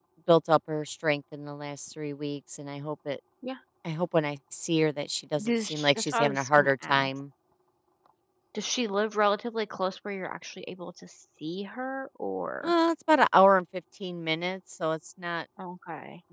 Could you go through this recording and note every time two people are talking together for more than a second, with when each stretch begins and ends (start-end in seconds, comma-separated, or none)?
5.4-7.1